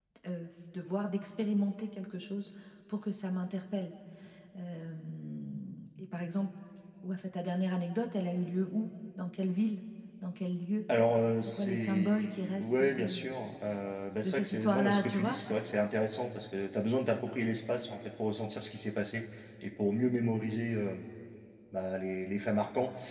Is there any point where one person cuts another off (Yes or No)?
Yes